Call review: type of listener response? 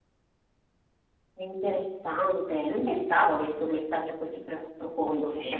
taking over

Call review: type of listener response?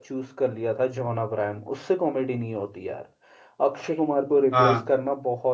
listening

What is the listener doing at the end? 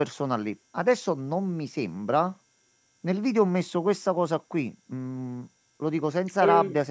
listening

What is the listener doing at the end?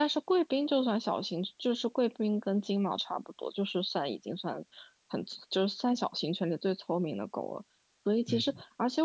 listening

